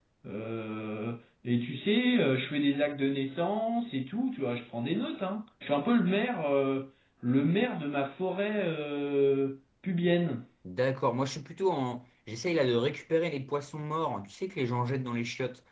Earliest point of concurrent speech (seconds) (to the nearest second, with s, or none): none